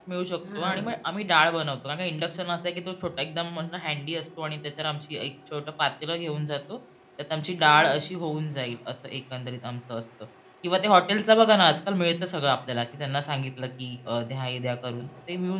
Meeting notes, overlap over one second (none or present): none